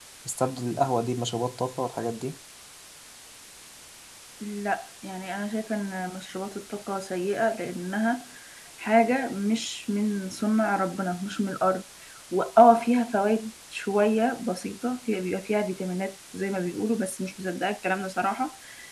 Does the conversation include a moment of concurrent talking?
No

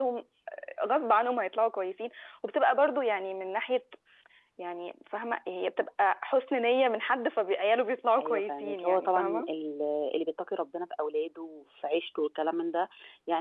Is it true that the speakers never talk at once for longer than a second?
No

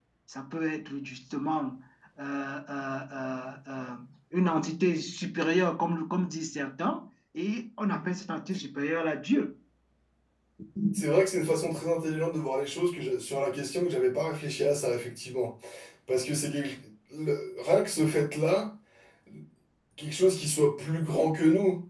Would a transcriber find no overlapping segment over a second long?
Yes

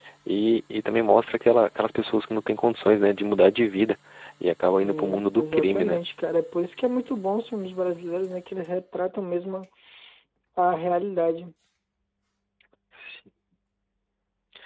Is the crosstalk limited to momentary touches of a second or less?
No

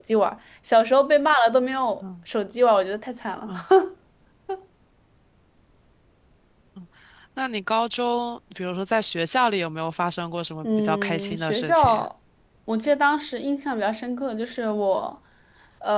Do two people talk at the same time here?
Yes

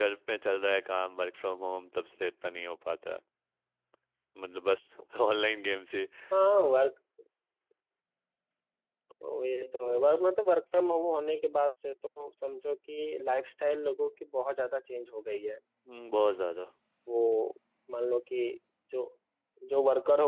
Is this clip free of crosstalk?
Yes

